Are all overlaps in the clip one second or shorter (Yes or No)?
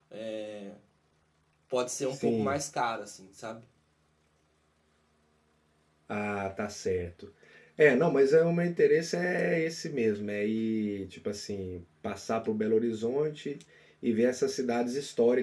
Yes